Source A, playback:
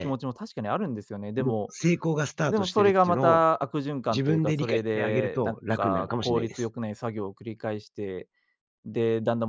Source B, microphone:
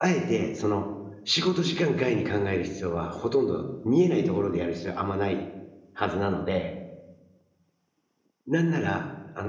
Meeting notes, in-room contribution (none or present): present